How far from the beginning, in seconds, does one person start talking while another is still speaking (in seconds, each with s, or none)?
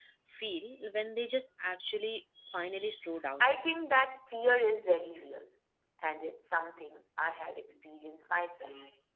none